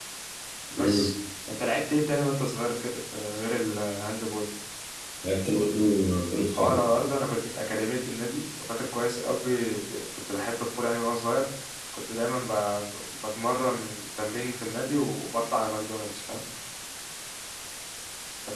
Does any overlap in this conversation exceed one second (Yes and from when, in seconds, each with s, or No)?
No